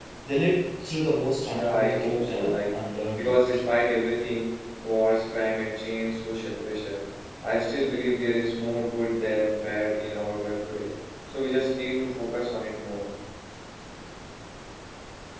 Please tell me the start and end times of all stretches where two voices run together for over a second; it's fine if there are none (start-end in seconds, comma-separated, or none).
1.5-2.8